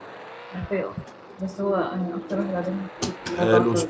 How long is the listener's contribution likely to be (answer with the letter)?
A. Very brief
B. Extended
B